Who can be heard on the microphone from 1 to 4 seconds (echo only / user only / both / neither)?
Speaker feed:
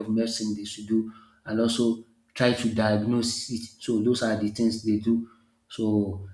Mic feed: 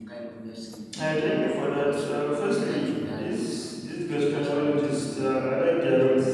both